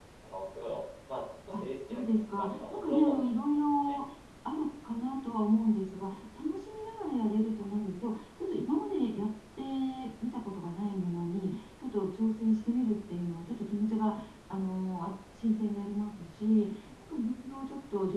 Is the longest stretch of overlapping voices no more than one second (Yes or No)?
No